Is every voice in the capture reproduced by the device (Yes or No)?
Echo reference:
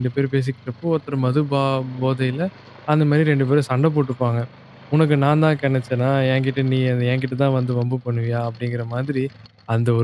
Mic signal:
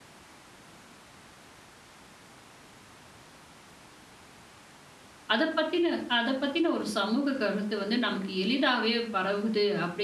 No